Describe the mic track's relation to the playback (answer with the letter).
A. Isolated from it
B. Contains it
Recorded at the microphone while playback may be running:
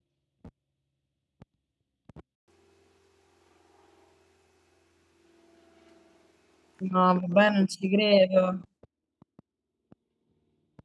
A